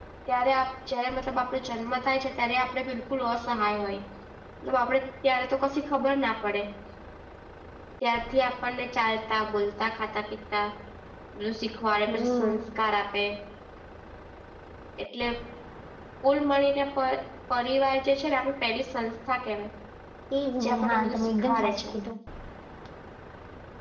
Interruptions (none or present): present